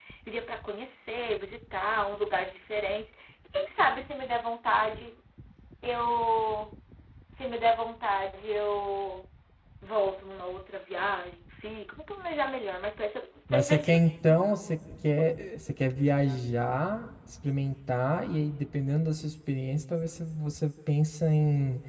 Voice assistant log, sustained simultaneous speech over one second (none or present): none